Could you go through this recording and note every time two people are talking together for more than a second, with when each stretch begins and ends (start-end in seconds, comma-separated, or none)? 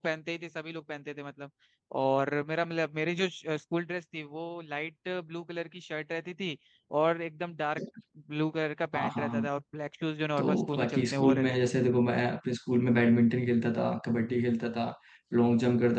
10.4-11.7